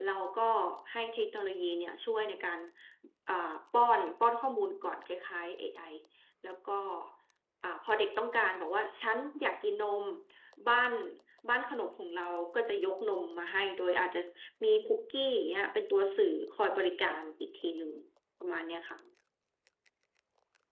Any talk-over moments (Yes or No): No